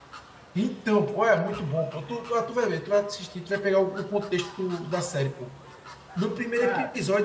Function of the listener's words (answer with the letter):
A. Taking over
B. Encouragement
B